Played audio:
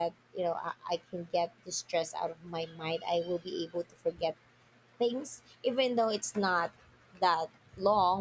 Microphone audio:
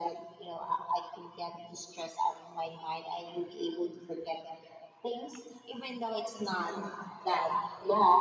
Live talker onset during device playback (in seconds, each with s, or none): none